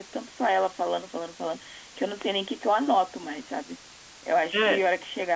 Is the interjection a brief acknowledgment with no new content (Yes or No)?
Yes